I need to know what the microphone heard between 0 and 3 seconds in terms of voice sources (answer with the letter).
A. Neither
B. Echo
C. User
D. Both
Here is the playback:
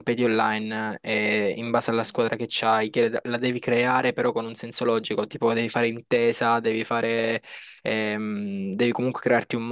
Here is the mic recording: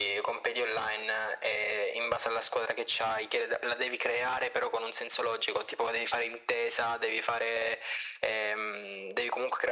B